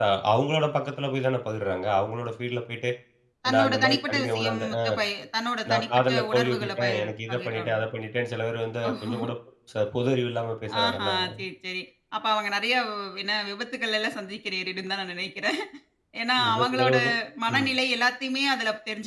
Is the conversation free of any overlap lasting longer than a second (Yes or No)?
No